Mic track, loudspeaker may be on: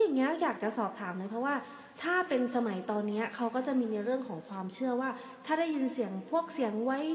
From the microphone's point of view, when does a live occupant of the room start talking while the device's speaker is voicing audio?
none

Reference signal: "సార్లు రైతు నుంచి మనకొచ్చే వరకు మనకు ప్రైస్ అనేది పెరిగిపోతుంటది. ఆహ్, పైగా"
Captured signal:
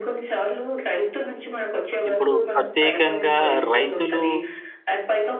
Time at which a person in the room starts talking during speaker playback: 2.1 s

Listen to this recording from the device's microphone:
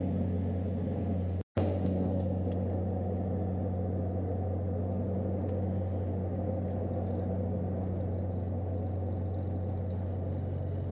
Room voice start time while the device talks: none

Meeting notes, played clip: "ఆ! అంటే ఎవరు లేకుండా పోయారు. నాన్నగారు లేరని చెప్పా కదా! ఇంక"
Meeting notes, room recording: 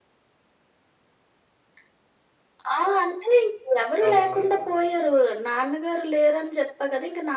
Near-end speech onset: 4.0 s

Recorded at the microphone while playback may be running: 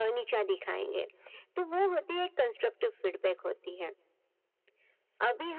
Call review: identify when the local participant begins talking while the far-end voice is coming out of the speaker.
none

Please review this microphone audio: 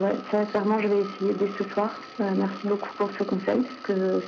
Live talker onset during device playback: none

